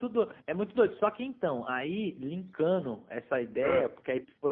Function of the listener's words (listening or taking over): listening